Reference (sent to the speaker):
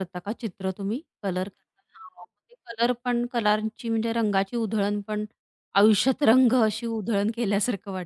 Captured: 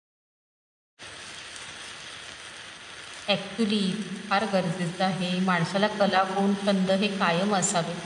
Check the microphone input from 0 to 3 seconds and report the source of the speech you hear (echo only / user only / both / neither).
neither